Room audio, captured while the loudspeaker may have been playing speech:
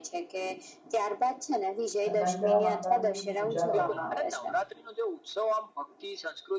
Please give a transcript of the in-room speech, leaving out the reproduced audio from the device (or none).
સકંડા માતા ની પૂજા કરવામાં આવે છે